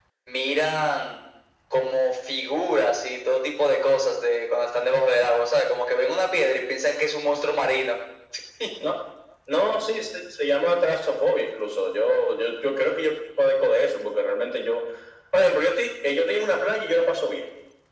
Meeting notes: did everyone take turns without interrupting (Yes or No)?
Yes